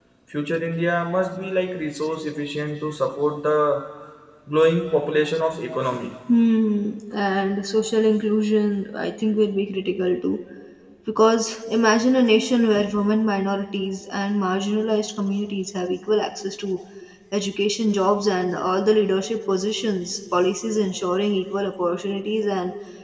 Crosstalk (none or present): none